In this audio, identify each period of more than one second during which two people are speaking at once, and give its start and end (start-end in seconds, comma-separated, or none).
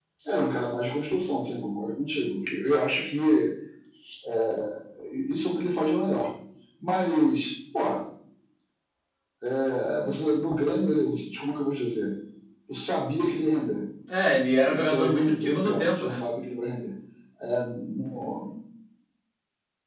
14.6-16.2